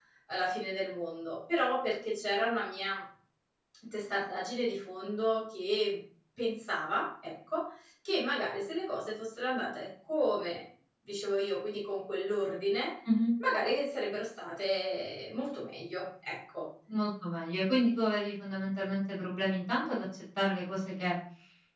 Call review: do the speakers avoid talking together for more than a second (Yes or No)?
Yes